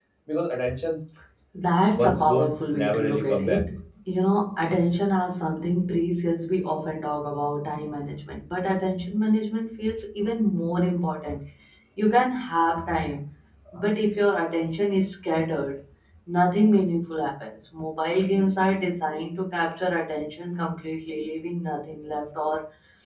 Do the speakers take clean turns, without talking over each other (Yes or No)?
No